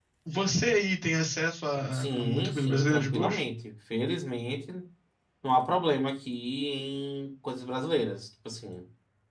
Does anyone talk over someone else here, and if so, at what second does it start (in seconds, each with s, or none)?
1.9 s